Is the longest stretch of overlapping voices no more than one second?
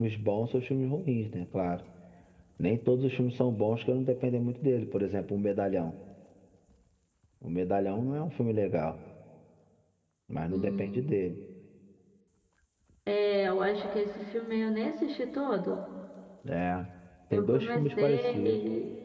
No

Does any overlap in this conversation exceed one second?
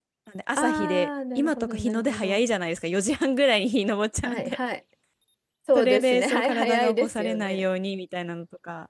Yes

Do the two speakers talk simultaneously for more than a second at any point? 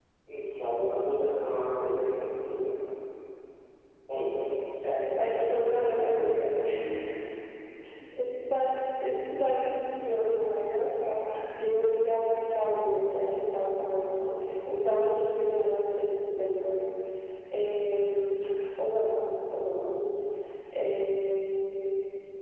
Yes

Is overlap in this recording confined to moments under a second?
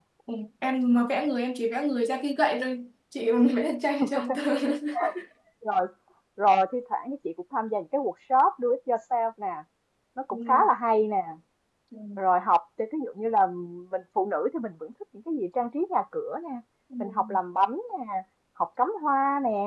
Yes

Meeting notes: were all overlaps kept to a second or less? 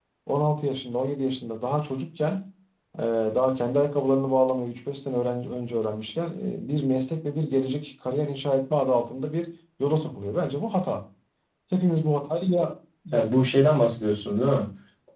Yes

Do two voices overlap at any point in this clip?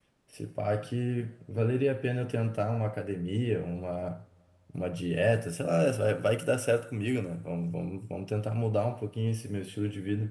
No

